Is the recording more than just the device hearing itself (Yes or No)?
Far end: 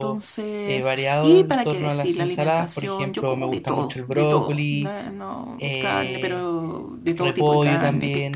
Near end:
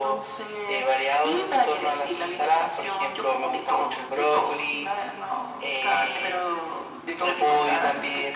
No